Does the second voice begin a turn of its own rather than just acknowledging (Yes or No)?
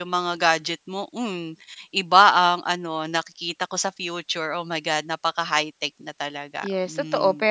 Yes